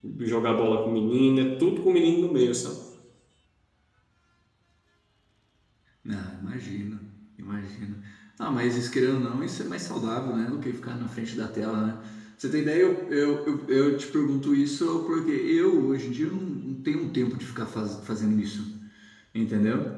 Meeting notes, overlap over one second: none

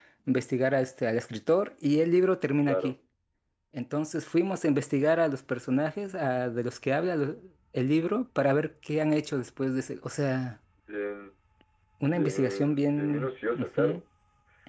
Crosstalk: present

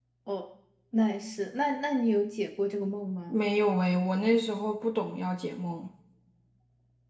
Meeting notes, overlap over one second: none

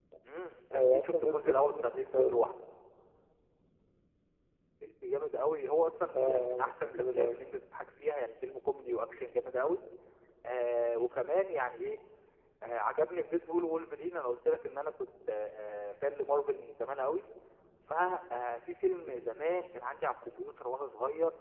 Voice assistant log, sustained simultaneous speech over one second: present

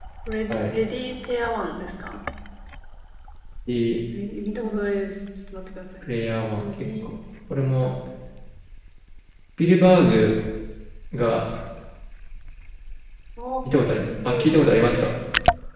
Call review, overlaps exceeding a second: present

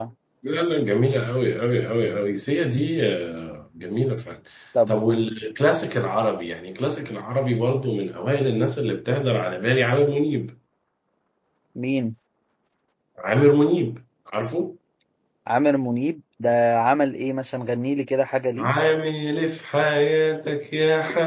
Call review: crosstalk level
none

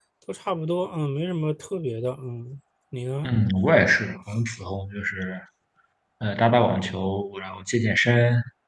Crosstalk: none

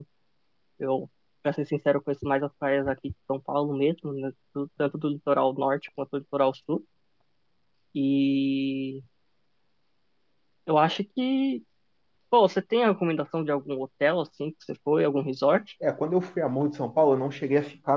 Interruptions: none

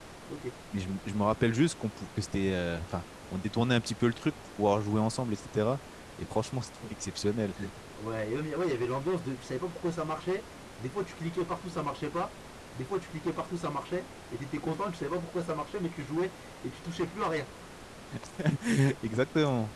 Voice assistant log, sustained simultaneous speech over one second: none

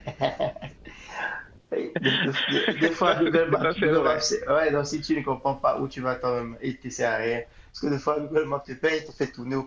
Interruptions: present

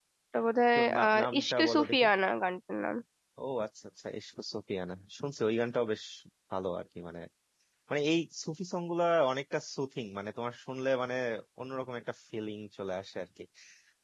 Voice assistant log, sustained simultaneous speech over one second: present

